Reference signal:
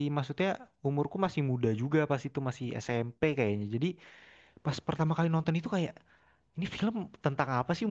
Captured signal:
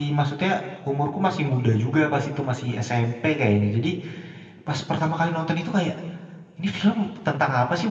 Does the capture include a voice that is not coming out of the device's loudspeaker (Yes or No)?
No